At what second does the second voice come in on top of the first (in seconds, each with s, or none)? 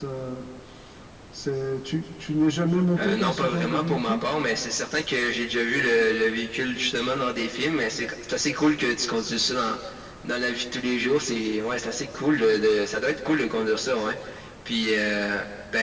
3.0 s